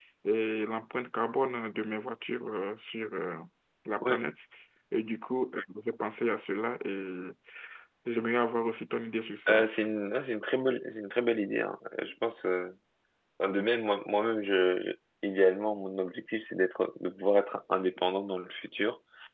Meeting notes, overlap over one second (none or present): none